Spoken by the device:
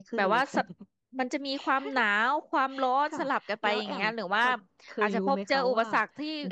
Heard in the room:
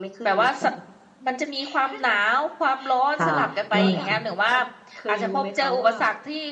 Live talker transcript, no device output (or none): ค่ะนั่นเลยค่ะ